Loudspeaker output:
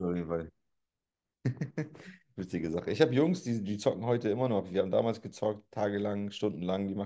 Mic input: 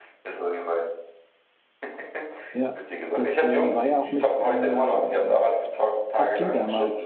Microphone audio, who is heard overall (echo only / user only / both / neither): both